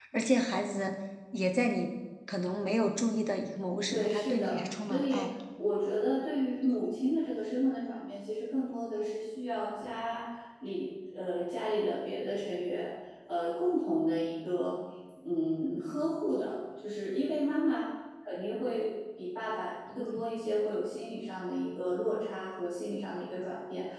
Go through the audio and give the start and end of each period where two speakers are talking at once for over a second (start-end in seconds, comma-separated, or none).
3.9-5.2